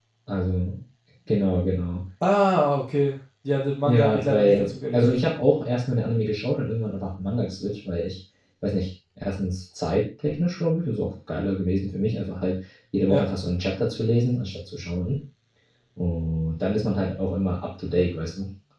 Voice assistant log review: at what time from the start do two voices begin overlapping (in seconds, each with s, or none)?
3.8 s